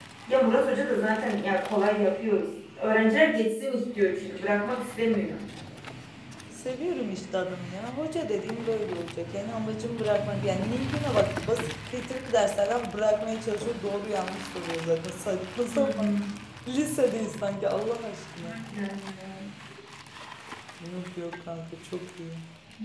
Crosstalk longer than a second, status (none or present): none